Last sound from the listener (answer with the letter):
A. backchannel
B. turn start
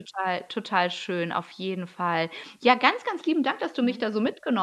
A